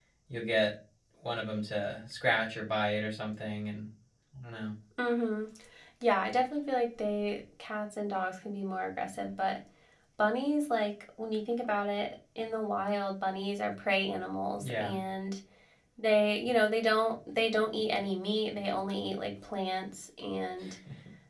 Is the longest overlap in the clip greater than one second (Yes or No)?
No